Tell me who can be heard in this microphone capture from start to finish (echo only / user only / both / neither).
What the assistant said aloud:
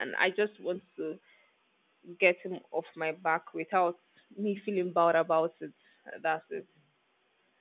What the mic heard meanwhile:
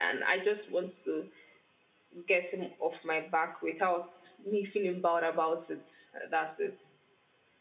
echo only